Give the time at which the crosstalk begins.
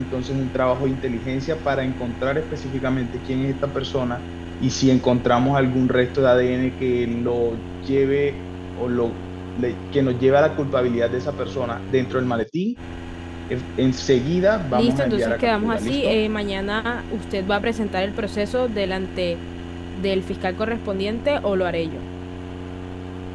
14.7 s

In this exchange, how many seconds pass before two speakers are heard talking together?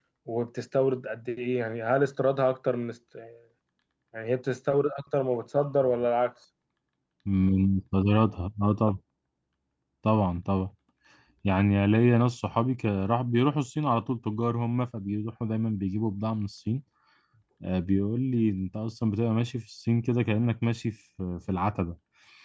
none

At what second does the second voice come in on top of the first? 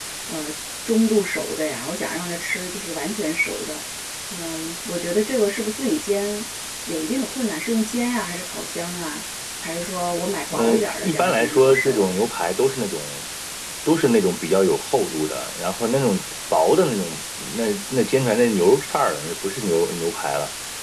10.5 s

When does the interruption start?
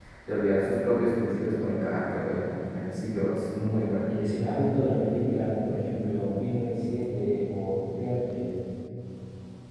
none

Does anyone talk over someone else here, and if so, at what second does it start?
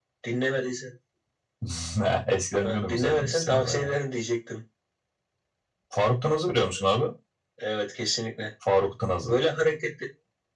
2.6 s

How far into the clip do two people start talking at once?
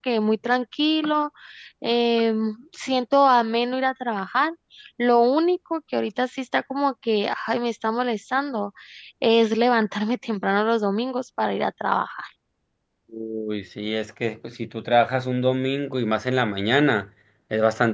none

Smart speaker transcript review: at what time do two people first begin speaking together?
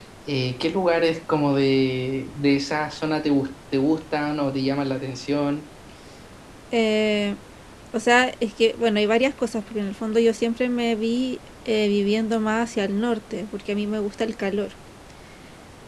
none

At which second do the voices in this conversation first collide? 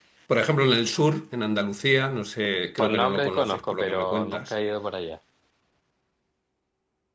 2.8 s

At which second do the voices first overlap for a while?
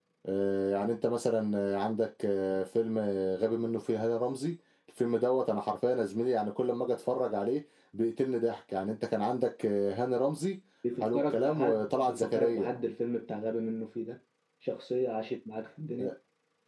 11.0 s

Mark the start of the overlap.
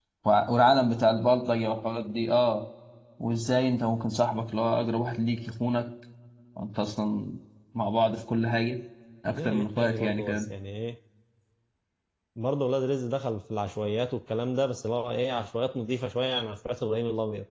9.3 s

